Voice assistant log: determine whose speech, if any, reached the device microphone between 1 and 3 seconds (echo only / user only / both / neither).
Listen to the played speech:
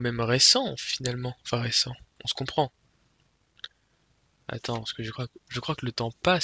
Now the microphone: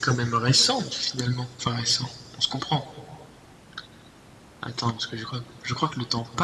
echo only